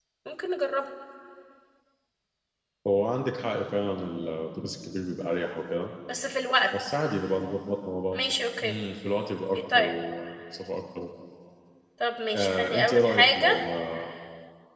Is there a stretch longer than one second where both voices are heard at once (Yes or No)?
Yes